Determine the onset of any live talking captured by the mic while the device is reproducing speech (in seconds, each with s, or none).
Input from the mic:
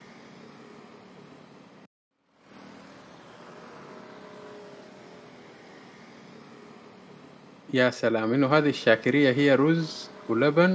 7.7 s